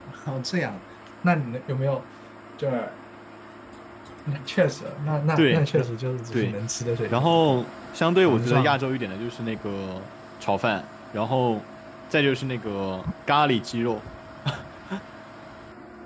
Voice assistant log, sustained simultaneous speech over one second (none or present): none